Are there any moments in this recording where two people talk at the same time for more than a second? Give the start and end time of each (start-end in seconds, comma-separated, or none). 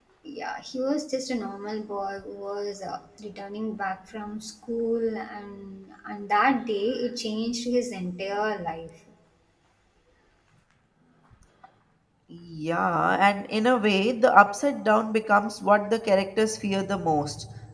none